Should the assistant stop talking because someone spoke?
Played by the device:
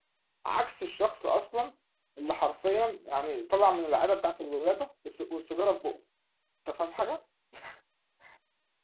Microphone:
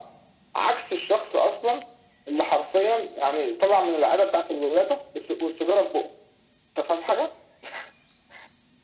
No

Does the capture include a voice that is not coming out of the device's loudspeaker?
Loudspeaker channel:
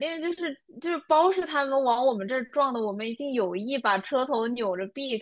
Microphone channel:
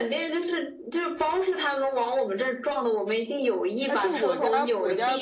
Yes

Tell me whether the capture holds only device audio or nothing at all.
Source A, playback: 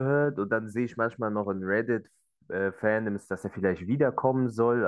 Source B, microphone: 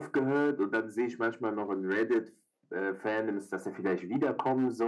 Yes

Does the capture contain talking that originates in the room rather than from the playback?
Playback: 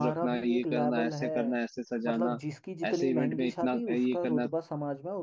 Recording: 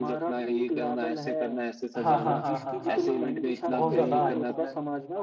Yes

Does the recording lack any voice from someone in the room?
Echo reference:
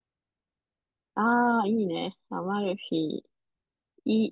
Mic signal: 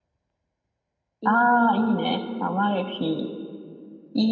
No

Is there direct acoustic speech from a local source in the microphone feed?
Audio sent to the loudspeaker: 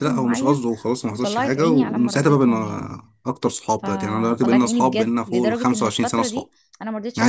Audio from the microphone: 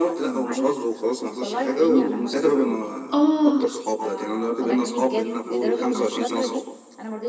Yes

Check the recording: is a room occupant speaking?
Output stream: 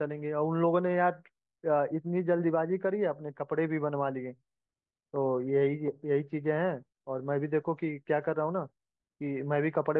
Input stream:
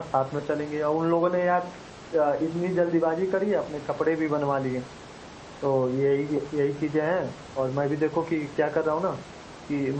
No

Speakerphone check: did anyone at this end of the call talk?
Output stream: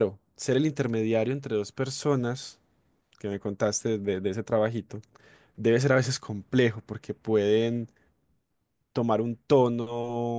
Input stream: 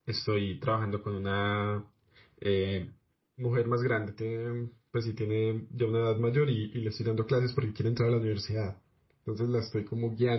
Yes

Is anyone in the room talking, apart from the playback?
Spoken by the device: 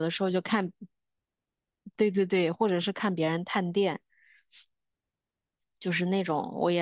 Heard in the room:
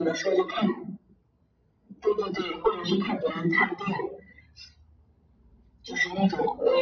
No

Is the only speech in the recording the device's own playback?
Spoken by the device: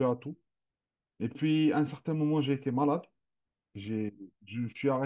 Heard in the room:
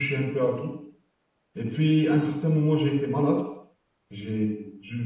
Yes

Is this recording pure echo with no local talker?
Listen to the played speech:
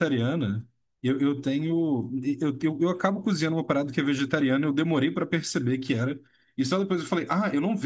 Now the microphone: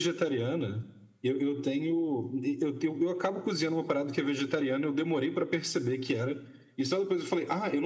Yes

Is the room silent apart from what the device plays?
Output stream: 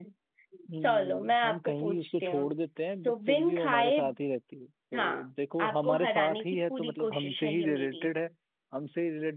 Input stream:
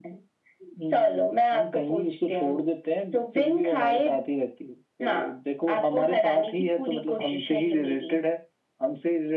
Yes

